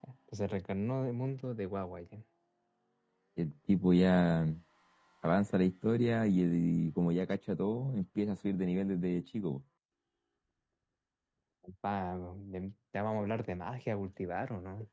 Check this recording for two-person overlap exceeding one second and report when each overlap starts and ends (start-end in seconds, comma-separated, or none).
none